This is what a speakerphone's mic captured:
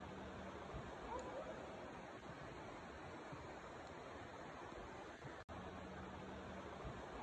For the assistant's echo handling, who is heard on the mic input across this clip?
neither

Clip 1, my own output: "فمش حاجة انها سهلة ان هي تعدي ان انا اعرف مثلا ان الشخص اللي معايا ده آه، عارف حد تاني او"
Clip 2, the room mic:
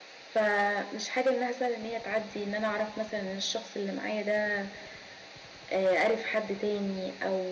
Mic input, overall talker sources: echo only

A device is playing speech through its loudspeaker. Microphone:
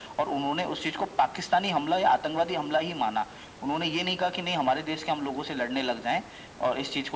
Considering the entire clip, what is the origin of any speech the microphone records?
echo only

